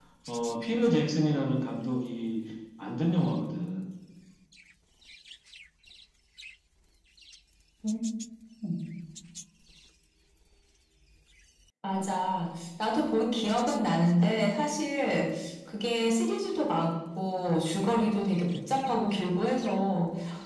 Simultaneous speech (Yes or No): No